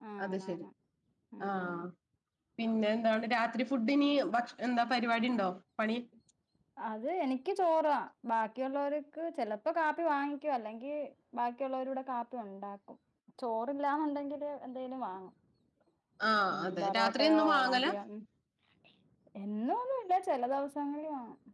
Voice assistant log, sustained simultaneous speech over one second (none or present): present